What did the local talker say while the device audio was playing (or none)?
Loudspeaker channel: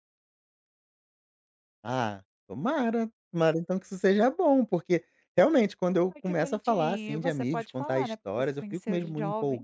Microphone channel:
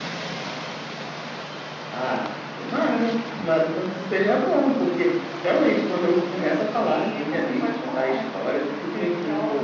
none